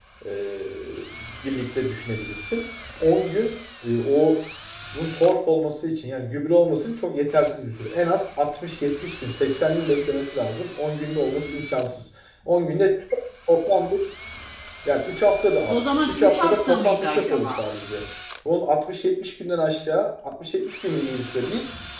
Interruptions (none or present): present